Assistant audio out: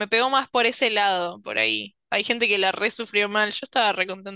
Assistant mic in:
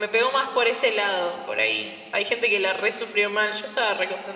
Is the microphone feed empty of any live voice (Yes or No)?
Yes